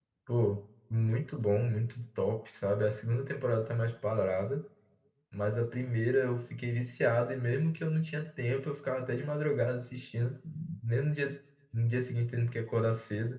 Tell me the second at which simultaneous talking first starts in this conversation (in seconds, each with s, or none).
none